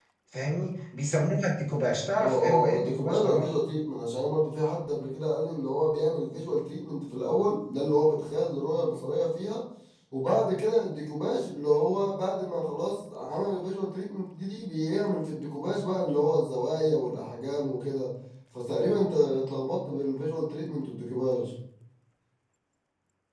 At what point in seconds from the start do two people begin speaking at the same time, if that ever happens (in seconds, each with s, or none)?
2.2 s